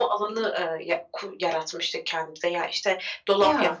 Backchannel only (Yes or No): Yes